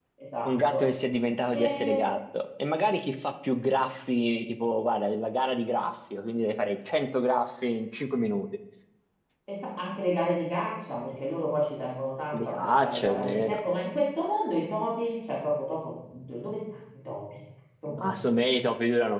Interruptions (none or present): present